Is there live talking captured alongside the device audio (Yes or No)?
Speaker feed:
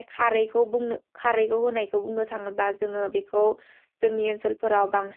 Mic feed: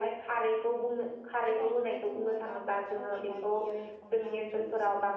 Yes